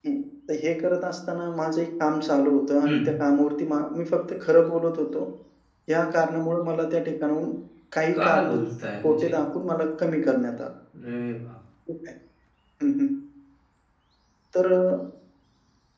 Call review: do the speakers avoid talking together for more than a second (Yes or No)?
Yes